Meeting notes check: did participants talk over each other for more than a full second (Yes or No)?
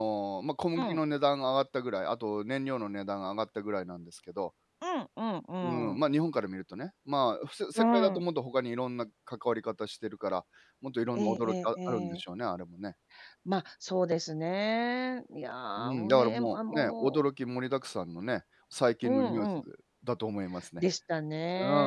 Yes